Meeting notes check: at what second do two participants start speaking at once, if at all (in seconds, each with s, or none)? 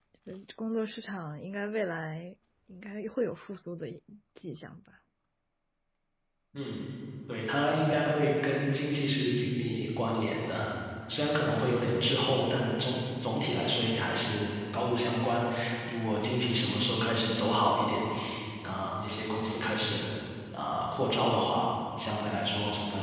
none